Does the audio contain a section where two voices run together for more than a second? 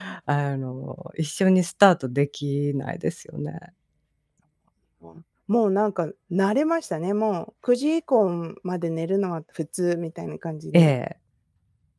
No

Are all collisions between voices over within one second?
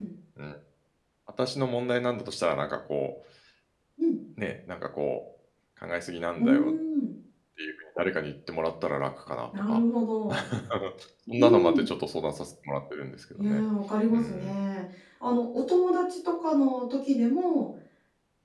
Yes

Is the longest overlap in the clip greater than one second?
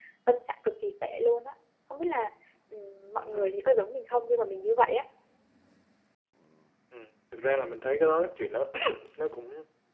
No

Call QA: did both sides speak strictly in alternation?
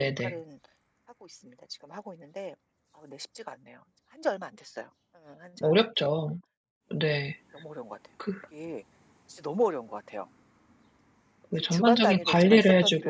No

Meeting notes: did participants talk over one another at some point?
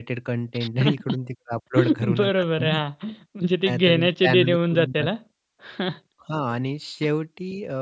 Yes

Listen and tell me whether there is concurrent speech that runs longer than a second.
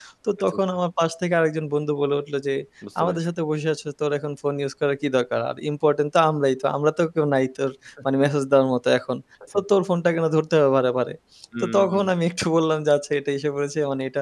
No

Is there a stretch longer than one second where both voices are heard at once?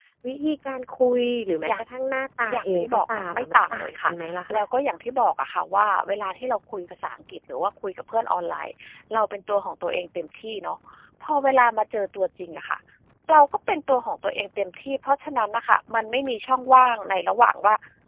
Yes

